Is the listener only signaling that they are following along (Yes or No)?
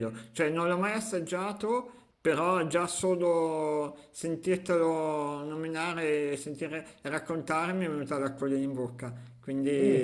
No